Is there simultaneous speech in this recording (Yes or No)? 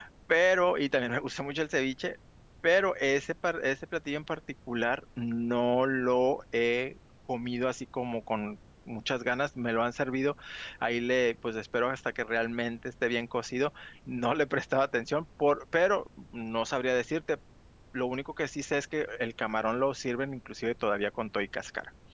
No